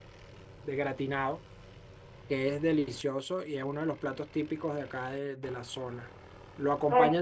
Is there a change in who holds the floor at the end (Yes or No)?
No